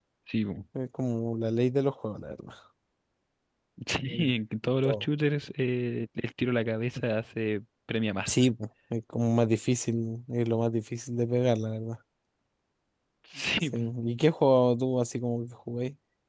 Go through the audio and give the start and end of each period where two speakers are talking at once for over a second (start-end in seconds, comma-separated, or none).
none